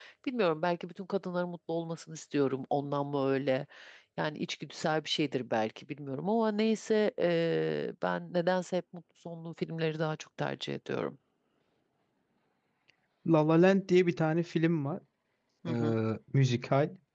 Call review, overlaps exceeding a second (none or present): none